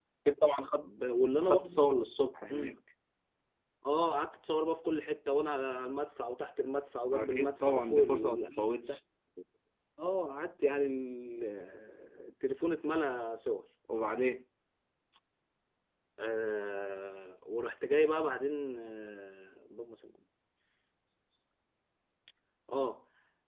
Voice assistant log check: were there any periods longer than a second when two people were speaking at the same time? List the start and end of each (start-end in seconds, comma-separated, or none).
7.1-9.0